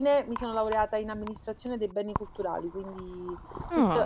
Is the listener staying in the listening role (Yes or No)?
Yes